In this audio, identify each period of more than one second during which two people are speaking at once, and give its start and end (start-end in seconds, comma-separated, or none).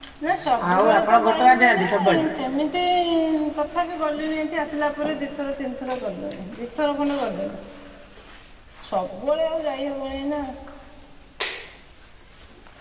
0.7-2.2